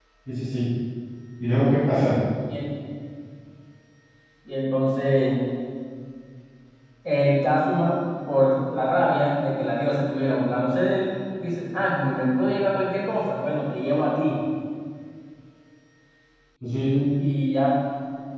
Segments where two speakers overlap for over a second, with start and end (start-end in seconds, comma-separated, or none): none